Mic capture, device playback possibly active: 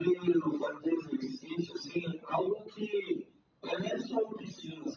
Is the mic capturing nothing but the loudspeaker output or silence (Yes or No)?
Yes